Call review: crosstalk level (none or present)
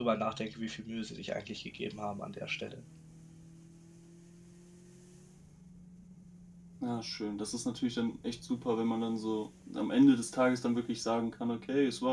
none